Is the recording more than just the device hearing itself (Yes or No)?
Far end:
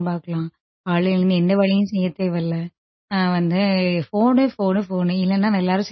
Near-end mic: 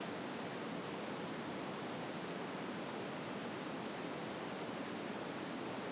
No